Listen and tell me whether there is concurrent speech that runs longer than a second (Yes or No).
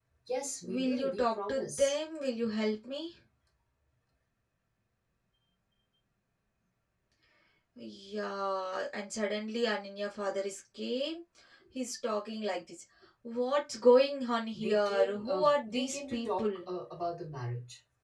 Yes